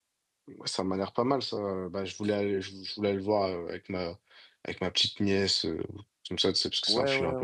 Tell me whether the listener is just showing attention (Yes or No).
No